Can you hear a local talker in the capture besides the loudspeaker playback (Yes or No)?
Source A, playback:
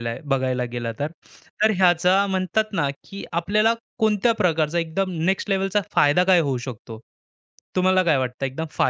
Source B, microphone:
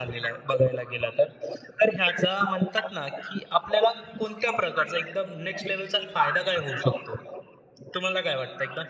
No